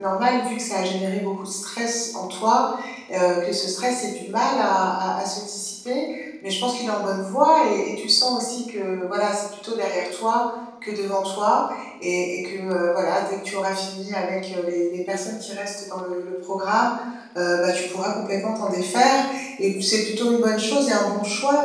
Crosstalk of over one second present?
No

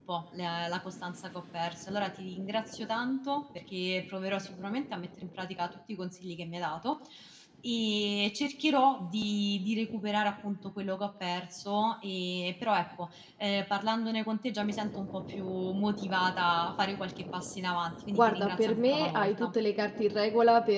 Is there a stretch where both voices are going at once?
Yes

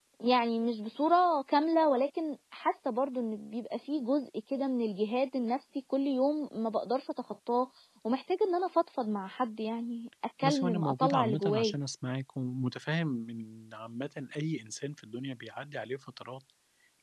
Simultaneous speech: Yes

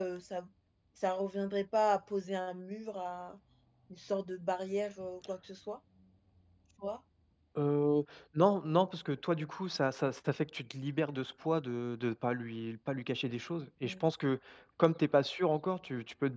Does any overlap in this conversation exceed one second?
No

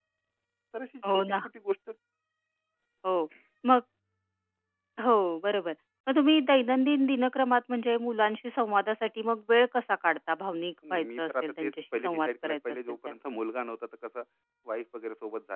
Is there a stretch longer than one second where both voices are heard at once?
Yes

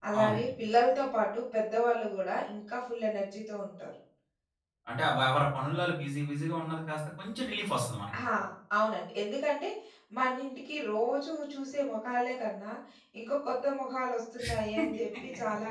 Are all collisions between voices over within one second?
Yes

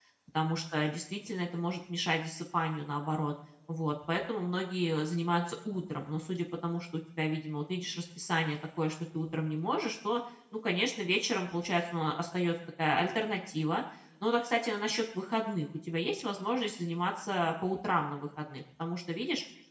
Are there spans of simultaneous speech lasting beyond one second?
No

